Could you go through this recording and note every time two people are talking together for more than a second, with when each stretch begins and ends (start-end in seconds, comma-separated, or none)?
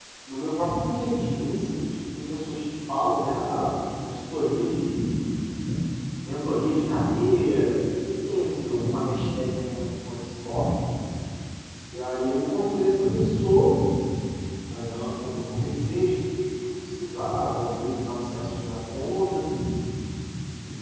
none